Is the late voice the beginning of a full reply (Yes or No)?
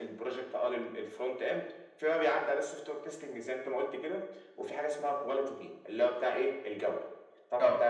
No